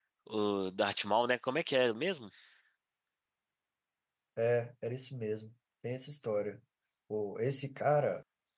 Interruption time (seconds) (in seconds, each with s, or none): none